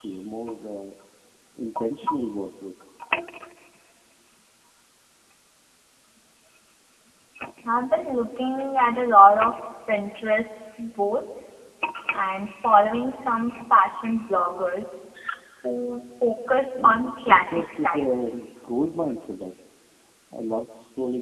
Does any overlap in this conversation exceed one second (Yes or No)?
Yes